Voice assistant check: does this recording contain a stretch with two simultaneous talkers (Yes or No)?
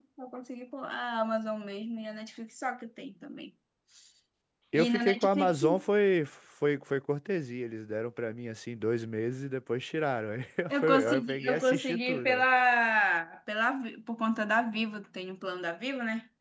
Yes